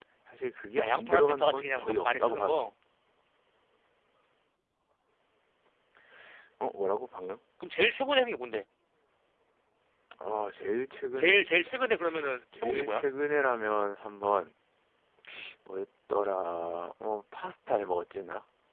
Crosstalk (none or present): present